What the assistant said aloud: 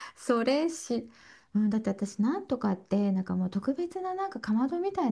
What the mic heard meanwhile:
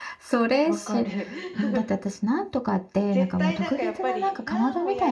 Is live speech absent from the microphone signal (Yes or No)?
No